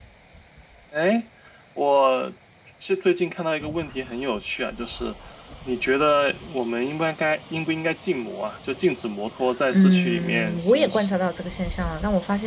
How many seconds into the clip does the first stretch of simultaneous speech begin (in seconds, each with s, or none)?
9.7 s